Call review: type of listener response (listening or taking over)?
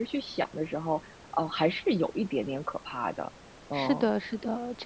taking over